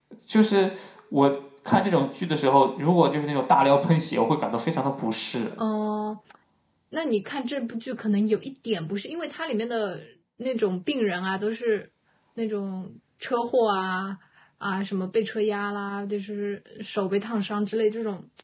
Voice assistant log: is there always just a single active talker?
Yes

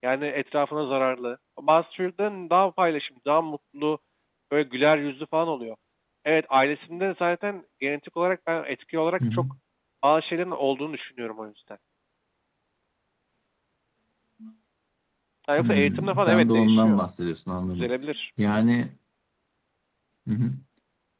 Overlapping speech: Yes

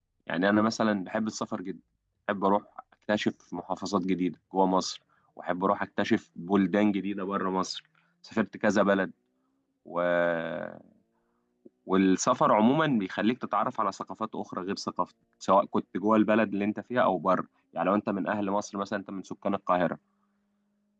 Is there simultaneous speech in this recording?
No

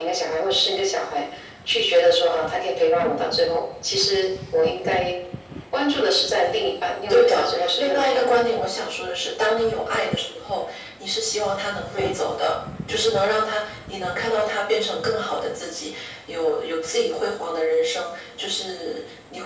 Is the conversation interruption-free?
No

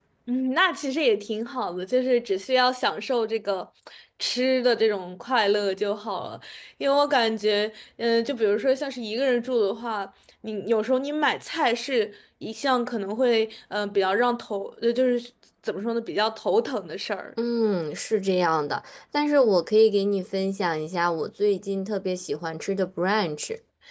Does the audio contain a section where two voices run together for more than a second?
No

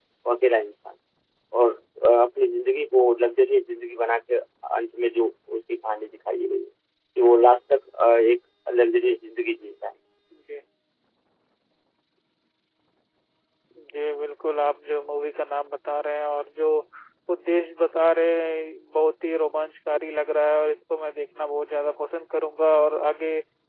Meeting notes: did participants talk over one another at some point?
No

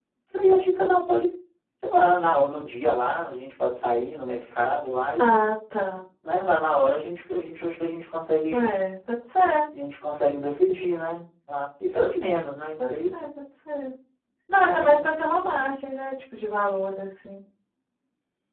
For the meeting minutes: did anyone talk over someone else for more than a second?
No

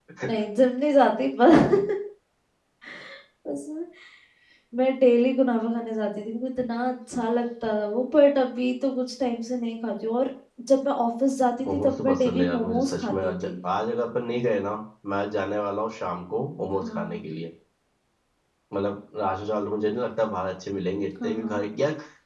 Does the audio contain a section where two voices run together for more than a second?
Yes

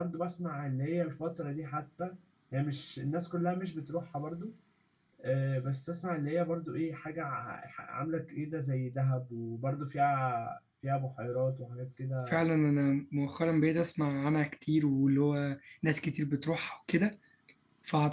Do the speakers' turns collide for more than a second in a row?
No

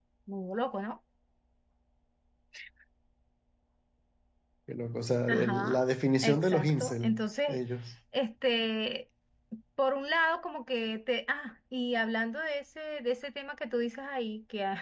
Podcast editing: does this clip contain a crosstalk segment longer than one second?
Yes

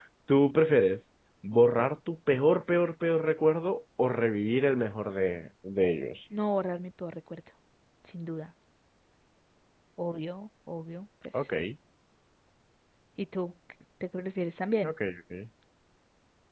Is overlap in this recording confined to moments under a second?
Yes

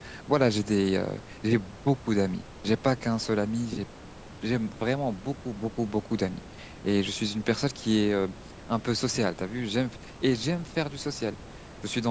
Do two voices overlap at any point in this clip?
No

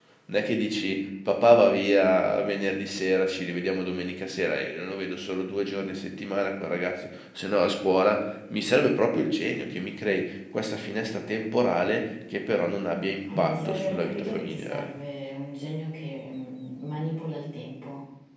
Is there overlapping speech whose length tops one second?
Yes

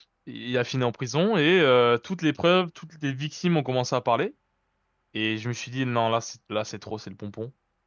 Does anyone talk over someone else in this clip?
No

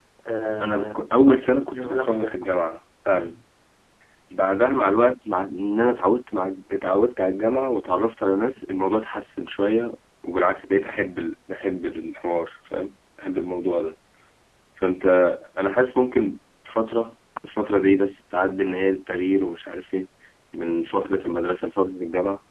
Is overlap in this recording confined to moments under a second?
No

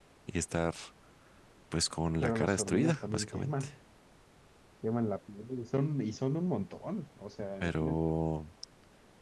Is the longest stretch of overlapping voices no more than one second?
No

